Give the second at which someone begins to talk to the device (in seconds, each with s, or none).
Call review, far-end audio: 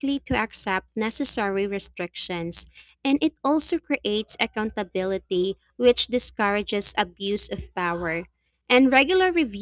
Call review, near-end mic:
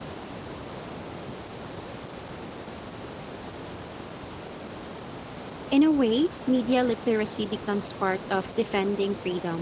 5.7 s